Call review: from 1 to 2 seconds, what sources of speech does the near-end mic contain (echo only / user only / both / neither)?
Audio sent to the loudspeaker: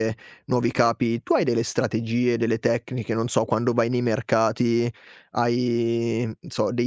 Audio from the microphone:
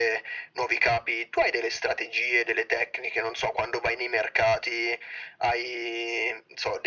echo only